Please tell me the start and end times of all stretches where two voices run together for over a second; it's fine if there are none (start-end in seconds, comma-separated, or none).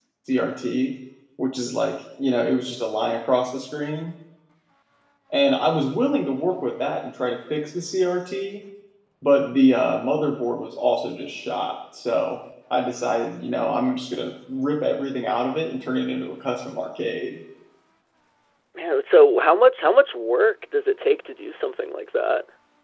none